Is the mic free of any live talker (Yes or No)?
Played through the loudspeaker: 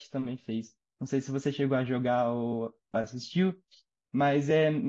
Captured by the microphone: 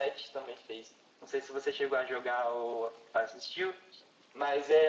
Yes